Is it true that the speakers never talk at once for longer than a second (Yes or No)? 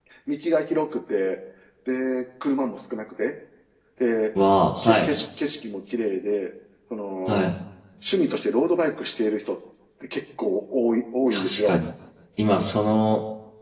Yes